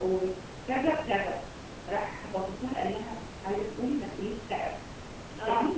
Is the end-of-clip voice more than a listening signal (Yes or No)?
No